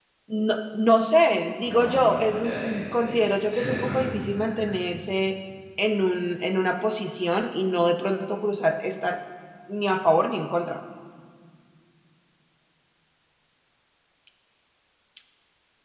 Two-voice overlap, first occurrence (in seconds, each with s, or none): 1.6 s